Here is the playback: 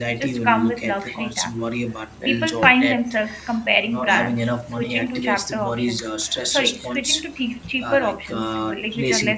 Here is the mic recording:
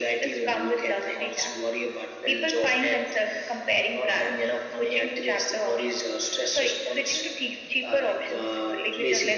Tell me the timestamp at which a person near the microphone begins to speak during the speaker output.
none

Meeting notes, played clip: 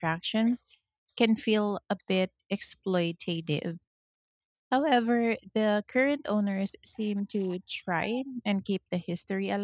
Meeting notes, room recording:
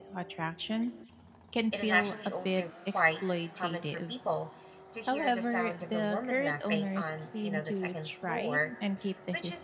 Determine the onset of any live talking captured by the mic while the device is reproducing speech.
1.7 s

